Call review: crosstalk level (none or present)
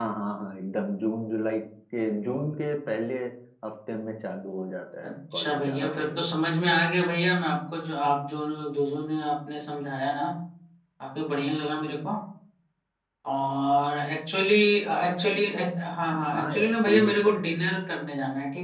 present